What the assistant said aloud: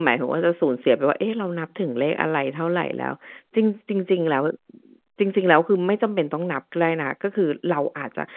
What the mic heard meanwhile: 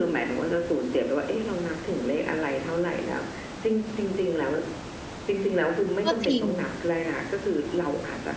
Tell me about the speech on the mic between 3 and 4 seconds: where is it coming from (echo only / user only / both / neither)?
echo only